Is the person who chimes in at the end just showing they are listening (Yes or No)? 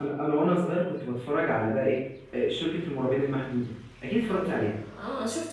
No